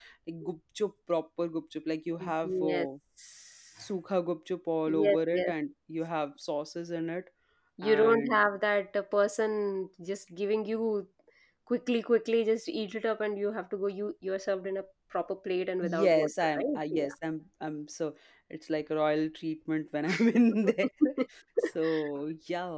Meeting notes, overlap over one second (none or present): present